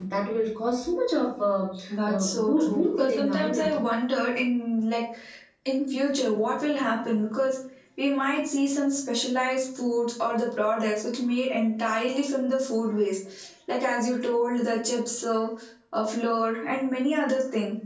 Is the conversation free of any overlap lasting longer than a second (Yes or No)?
No